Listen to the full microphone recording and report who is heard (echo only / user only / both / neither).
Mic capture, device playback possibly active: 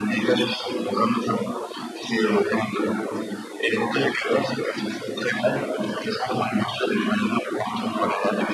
echo only